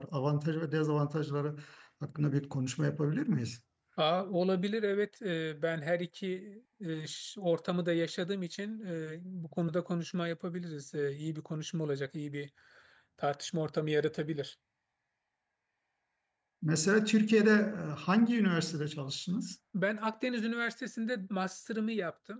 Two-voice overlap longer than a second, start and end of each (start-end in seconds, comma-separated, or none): none